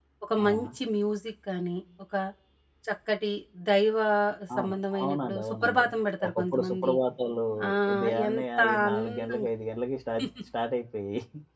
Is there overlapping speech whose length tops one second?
Yes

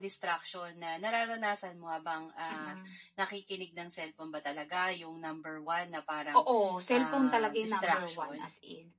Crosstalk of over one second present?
Yes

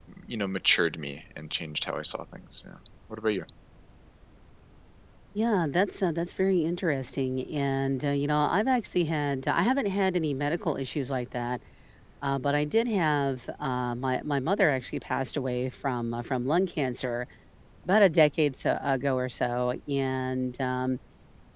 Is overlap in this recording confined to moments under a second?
Yes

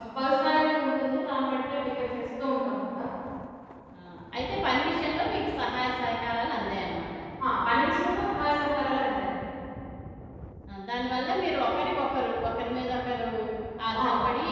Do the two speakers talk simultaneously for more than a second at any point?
No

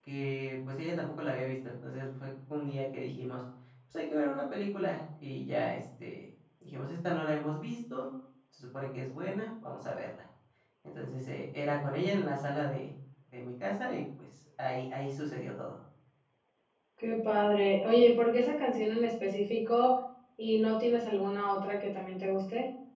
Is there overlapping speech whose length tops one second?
No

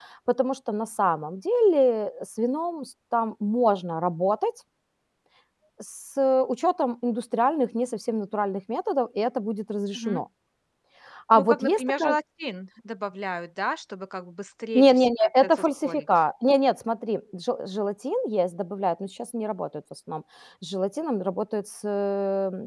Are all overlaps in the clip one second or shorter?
No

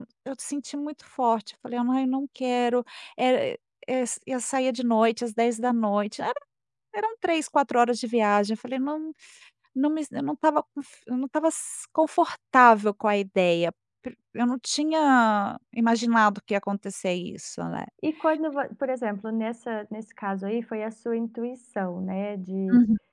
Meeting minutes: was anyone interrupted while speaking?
No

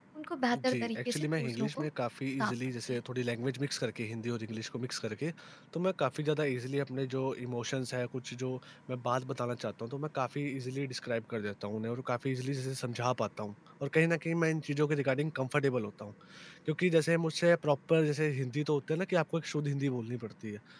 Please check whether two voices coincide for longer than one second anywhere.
Yes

